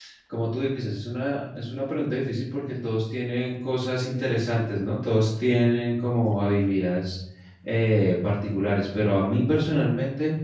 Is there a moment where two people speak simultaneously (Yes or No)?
No